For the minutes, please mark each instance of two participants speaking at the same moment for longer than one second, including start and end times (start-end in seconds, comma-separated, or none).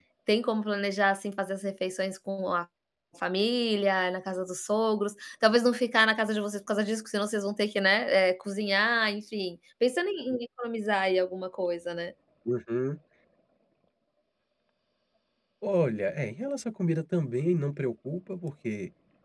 none